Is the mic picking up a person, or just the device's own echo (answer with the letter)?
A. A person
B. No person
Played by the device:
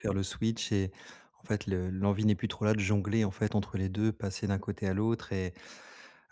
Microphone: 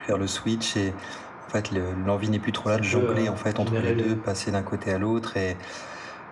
A